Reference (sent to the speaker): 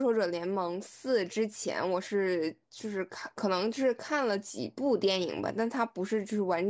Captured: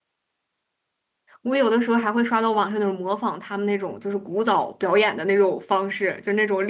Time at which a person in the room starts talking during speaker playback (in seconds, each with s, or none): 1.4 s